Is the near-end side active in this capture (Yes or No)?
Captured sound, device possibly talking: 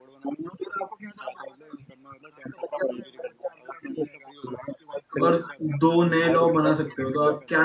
Yes